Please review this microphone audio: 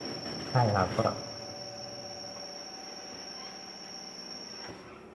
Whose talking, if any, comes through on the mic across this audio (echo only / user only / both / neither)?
user only